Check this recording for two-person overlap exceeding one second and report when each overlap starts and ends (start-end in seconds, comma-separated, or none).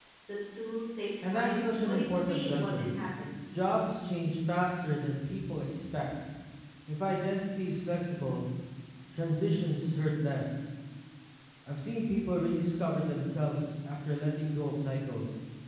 1.2-2.9